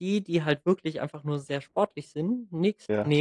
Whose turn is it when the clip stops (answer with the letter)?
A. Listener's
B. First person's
B